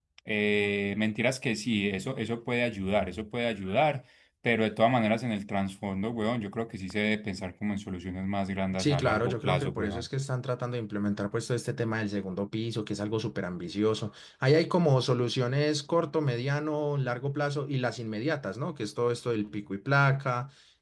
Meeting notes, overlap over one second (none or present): present